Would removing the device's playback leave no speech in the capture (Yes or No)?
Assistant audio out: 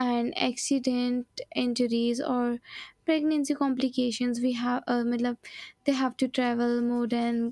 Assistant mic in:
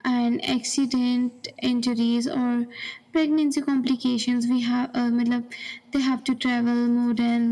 Yes